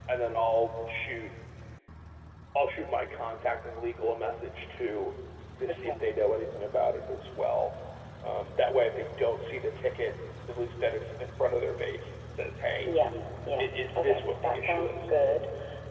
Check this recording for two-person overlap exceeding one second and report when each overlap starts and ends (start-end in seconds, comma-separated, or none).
13.6-14.9